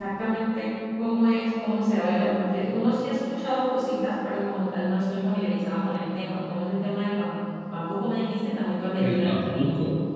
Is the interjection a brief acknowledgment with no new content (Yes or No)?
No